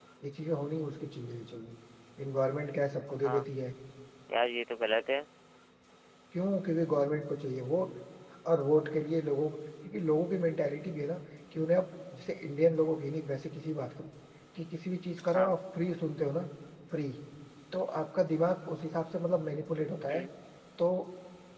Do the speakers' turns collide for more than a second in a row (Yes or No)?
No